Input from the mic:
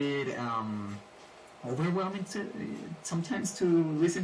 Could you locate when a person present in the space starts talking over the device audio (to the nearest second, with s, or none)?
none